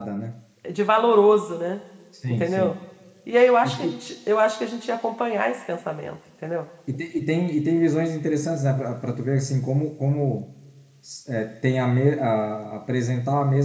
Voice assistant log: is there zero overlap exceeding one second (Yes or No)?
Yes